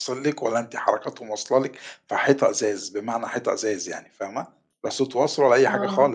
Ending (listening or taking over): listening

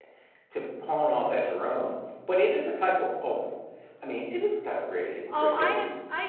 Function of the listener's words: taking over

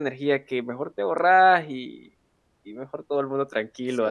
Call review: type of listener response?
taking over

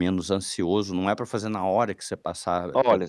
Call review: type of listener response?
taking over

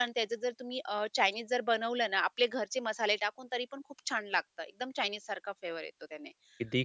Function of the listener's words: listening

